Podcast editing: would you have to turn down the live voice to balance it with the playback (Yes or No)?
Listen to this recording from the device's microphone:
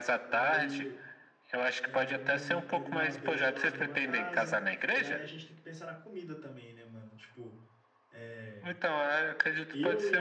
No